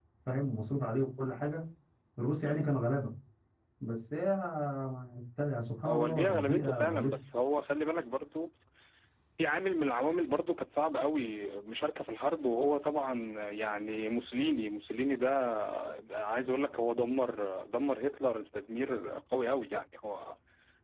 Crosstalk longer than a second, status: present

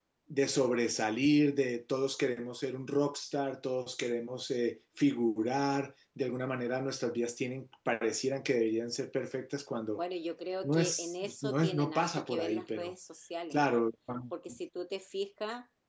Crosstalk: present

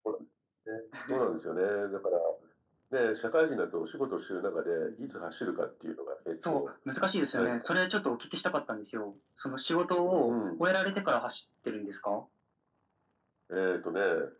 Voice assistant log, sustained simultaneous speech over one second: none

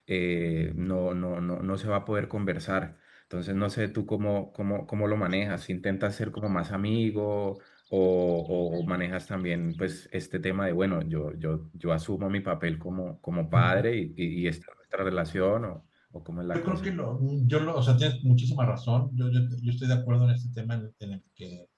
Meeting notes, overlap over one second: none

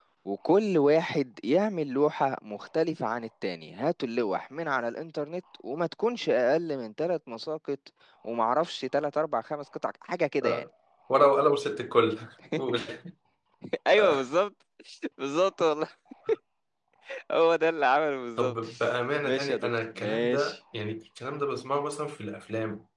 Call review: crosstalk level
present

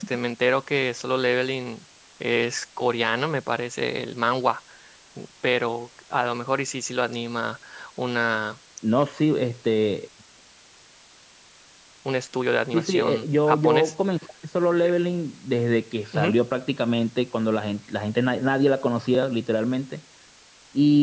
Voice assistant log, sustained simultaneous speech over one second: present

